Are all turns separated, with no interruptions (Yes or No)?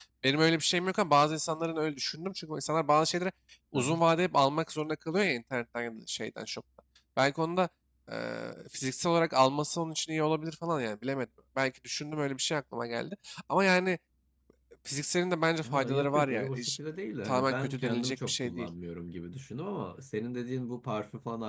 No